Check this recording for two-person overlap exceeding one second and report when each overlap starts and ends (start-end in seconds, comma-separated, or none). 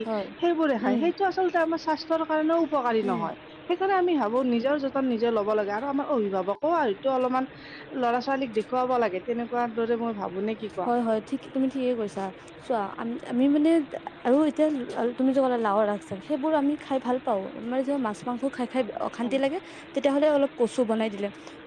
none